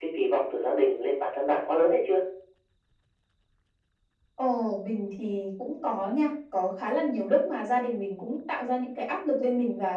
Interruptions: none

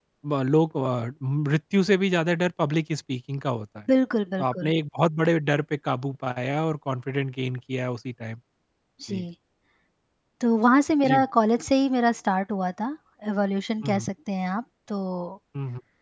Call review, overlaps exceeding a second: none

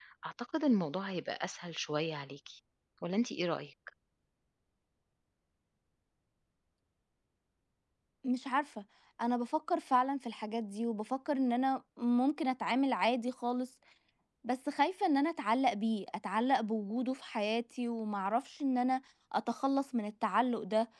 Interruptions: none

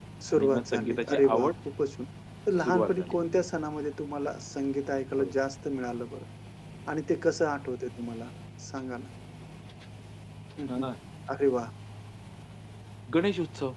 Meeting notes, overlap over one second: present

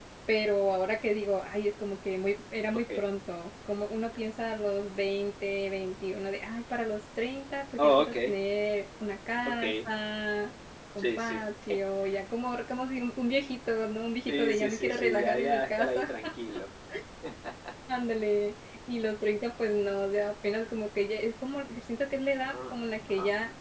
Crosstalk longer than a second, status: present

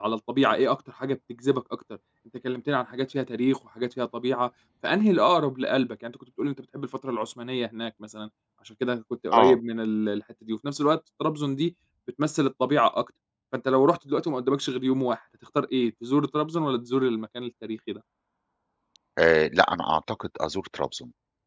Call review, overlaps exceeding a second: none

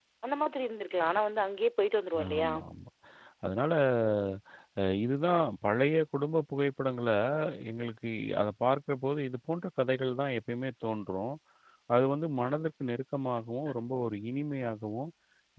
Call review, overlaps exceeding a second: none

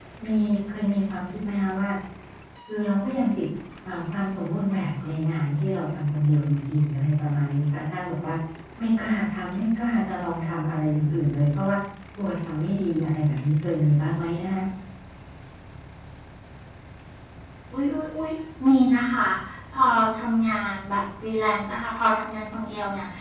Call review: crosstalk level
none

